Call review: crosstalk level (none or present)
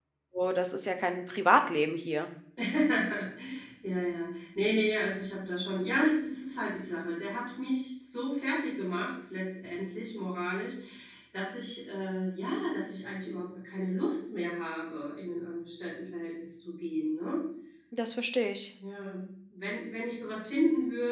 none